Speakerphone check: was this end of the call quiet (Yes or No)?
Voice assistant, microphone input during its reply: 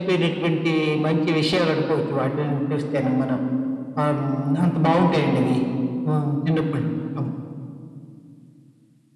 Yes